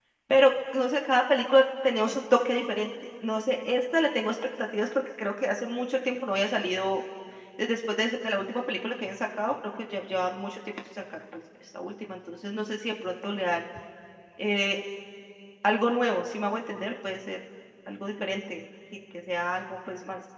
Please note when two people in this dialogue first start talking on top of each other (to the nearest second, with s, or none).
none